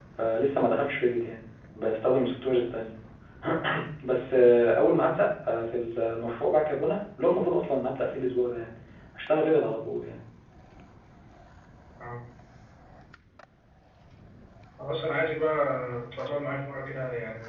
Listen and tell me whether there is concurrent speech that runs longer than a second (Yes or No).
No